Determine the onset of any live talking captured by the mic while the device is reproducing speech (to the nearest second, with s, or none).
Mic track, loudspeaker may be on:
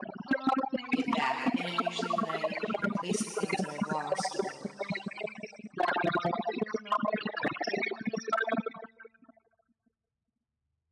1 s